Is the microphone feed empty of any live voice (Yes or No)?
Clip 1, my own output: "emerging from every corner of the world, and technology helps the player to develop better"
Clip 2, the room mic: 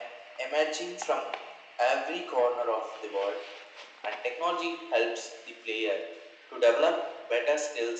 Yes